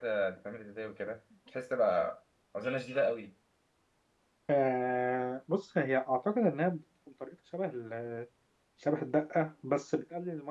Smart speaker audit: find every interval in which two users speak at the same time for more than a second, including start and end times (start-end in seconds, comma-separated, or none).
none